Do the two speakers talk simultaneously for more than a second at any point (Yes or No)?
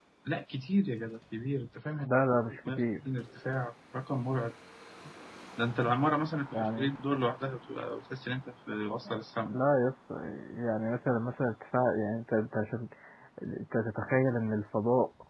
No